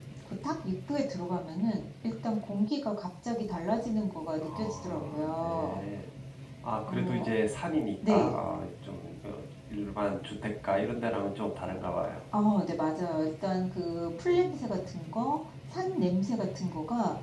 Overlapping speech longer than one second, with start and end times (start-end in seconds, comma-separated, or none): 4.5-5.8